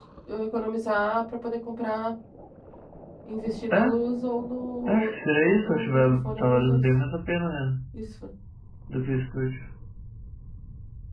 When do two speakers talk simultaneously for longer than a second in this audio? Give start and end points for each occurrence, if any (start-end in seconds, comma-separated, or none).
4.8-6.8